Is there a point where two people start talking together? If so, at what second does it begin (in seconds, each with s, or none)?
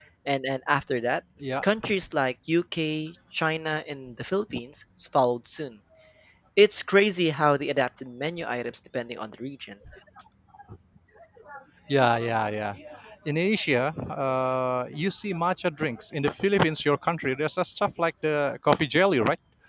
none